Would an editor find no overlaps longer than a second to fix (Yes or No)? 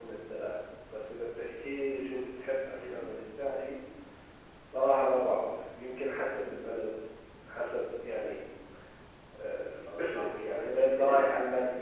No